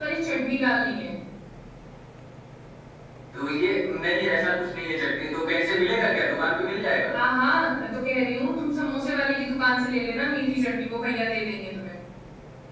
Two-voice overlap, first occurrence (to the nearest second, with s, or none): none